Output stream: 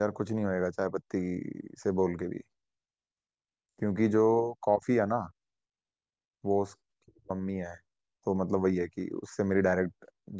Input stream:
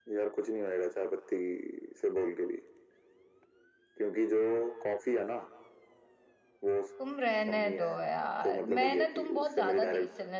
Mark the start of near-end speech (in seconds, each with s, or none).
7.0 s